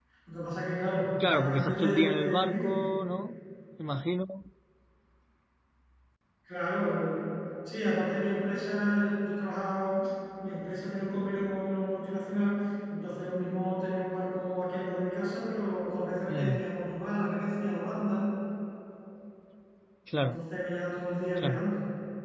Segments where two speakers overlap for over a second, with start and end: 1.3-2.7

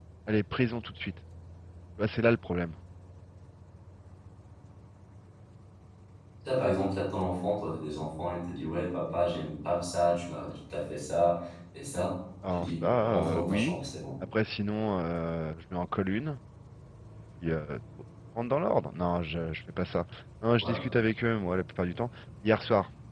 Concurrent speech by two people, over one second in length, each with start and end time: 12.5-13.8

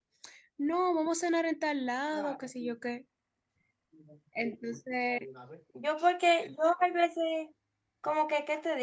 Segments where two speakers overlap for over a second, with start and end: none

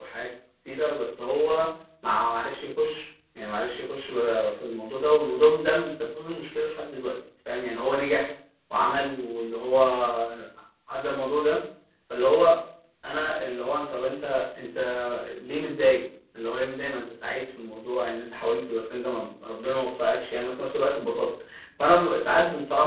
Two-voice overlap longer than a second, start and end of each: none

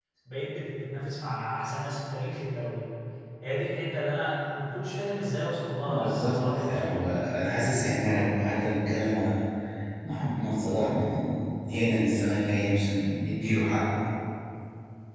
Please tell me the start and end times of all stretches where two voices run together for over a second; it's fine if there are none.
5.9-7.2

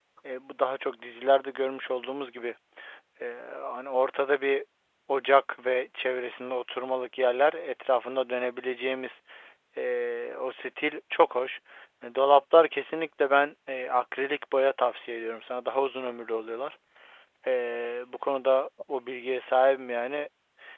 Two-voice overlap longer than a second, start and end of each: none

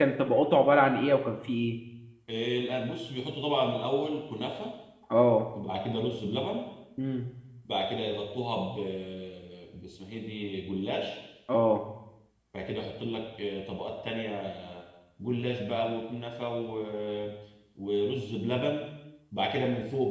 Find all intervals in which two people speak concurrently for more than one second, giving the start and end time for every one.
none

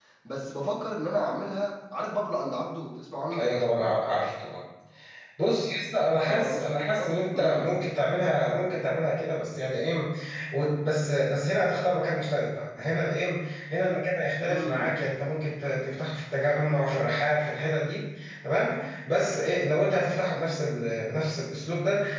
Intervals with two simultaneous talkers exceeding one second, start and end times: 6.2-7.7

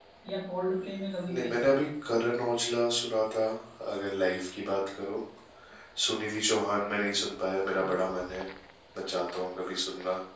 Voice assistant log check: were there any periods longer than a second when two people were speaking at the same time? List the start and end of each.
none

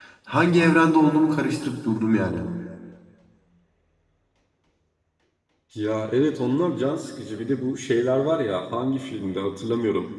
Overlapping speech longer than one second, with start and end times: none

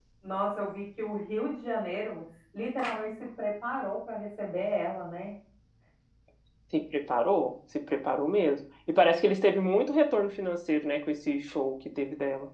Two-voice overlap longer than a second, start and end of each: none

